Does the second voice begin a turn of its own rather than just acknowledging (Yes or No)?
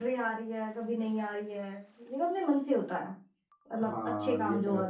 Yes